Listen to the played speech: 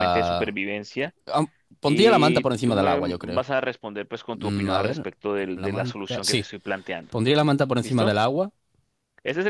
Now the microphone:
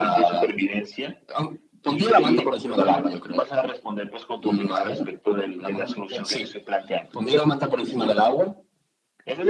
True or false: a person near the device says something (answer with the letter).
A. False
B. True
A